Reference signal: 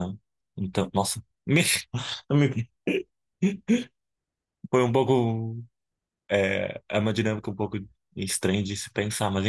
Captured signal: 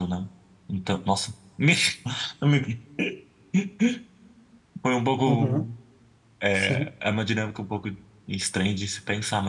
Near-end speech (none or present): present